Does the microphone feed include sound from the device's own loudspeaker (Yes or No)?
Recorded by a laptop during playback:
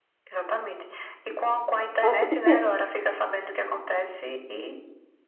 Yes